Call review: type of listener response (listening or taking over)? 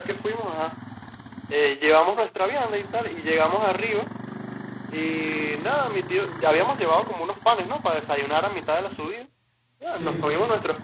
listening